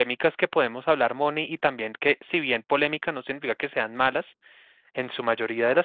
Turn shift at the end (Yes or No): No